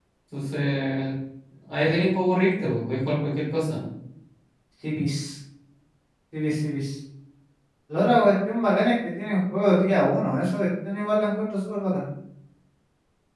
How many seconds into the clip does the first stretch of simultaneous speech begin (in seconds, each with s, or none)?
none